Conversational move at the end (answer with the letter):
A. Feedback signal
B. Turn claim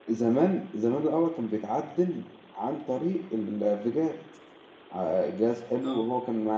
A